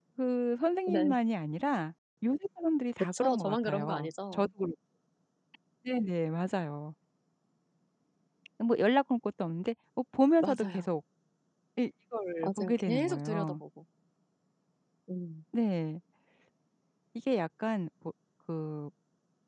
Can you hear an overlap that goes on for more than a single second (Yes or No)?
Yes